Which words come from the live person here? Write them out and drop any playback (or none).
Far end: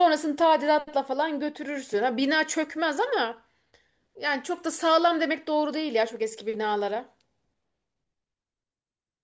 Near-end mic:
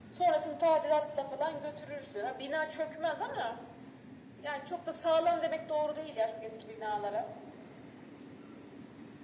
none